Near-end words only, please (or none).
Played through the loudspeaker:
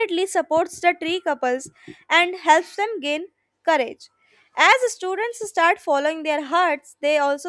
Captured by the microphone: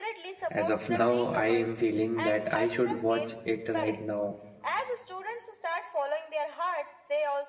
As of now, I am feeling that I should watch it right now.